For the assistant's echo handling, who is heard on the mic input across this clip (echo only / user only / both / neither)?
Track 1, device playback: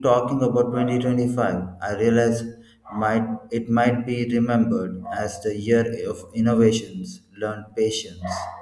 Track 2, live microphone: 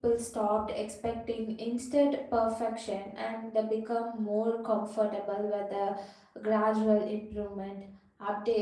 user only